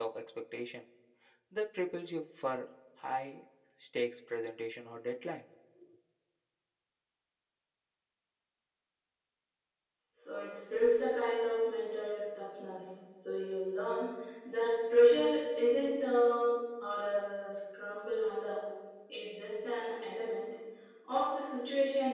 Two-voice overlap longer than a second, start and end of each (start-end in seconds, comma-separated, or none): none